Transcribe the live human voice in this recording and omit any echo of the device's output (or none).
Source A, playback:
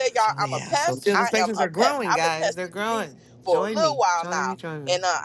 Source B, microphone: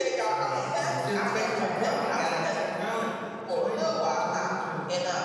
none